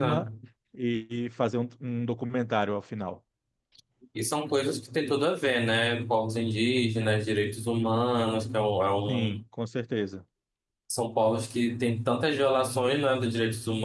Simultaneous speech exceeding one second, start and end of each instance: none

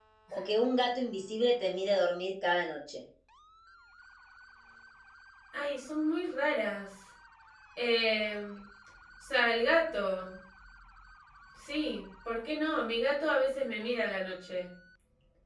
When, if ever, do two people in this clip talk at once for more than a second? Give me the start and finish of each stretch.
none

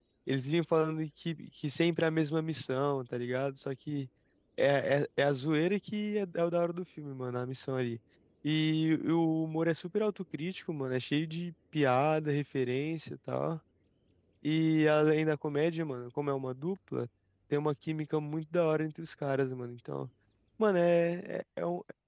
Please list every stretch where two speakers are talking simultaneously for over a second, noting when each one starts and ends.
none

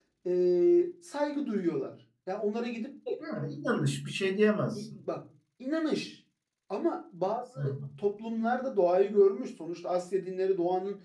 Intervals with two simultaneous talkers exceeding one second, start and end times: none

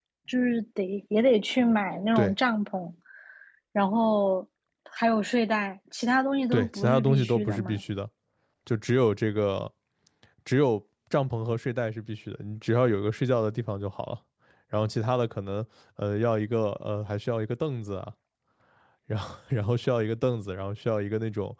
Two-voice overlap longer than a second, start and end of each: 6.5-7.8

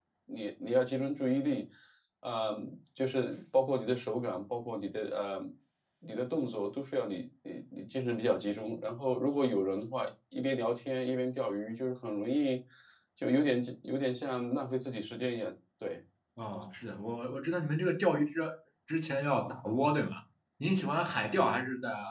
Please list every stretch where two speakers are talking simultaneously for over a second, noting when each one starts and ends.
none

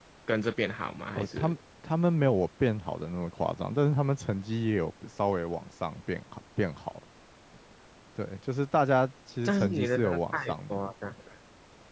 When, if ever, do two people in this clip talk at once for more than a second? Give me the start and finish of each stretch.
9.4-10.8

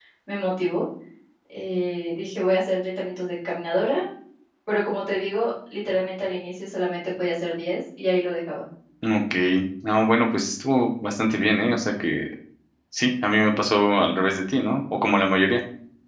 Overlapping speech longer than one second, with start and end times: none

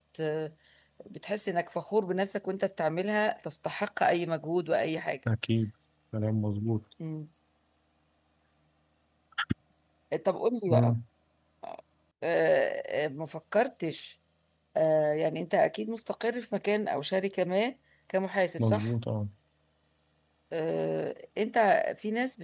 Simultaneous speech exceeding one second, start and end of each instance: none

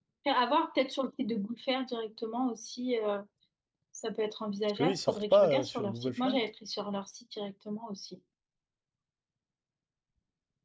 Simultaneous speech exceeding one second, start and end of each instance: 4.8-6.4

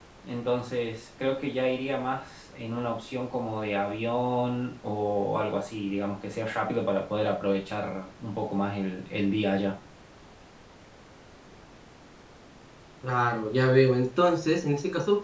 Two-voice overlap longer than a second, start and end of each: none

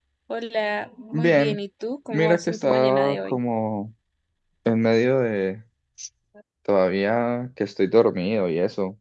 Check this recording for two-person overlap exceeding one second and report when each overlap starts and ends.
2.1-3.4

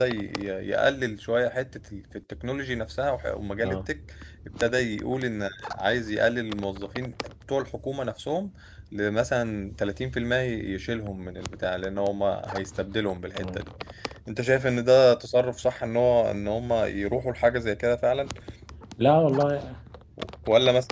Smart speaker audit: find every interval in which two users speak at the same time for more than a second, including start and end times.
none

